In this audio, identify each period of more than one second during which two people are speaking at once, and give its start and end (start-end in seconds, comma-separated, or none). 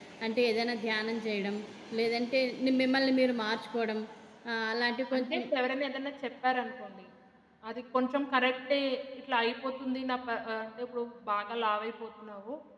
none